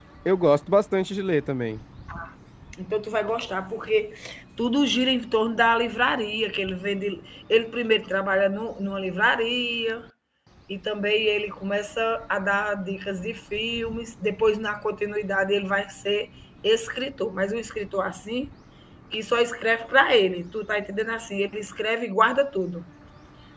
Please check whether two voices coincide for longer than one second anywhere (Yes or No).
No